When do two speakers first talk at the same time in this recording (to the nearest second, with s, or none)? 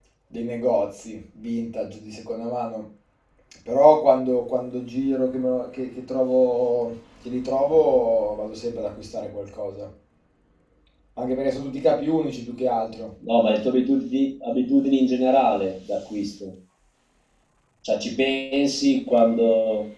none